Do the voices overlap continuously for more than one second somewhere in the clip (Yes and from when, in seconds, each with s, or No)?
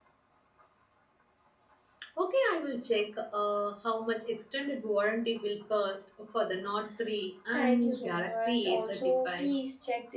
Yes, from 7.5 s